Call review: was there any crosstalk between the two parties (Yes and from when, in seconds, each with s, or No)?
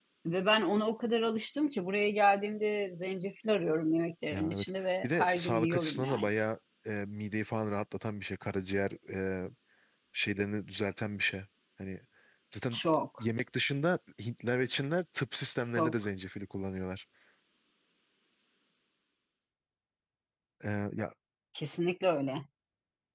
Yes, from 4.3 s